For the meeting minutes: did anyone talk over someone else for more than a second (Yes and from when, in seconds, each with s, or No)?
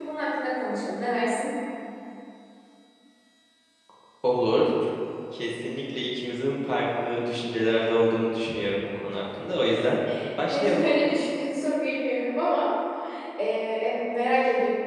No